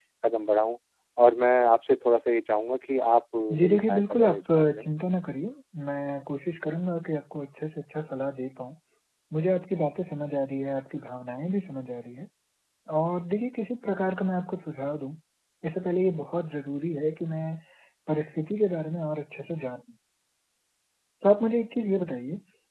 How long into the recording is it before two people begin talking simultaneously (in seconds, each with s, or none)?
3.5 s